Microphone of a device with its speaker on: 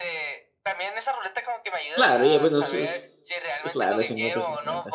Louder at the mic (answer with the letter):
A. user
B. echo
A